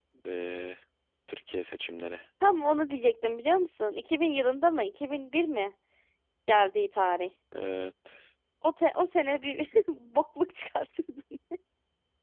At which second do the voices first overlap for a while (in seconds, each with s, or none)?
none